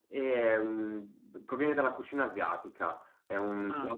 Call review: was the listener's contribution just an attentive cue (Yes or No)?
Yes